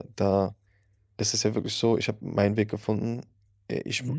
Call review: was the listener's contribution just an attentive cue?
Yes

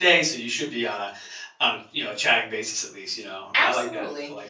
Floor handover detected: Yes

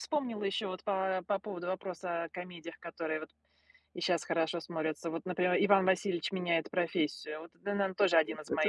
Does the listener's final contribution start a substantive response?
Yes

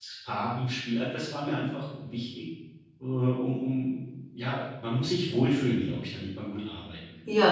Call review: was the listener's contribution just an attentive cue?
No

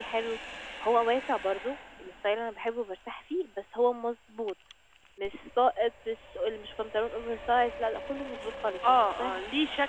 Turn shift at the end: Yes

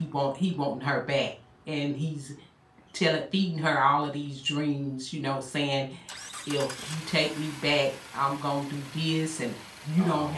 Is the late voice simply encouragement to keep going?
Yes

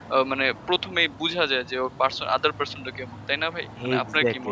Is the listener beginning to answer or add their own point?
Yes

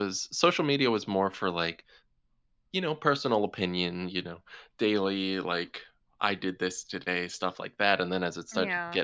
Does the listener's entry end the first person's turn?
No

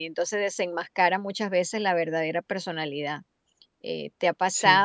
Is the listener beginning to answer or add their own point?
No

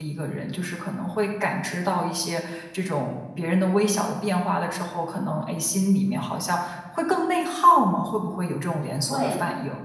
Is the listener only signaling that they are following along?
No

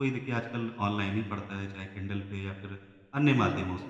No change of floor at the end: Yes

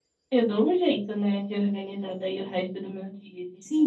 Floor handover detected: Yes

